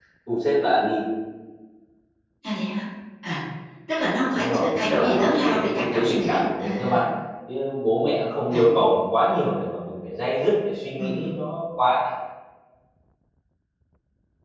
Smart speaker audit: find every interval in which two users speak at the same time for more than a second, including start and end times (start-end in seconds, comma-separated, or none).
4.3-7.0